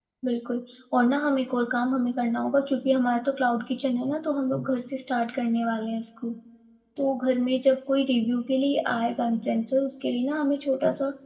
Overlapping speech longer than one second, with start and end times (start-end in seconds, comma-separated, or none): none